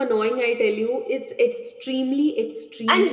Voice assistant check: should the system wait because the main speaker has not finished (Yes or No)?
No